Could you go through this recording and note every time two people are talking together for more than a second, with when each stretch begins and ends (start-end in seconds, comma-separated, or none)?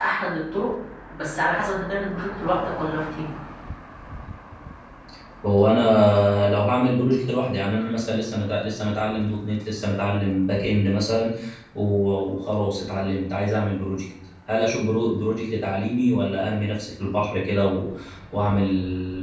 none